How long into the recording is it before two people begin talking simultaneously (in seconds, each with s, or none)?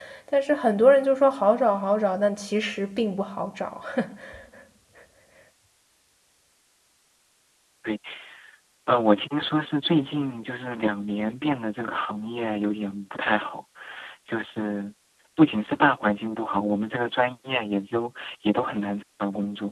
none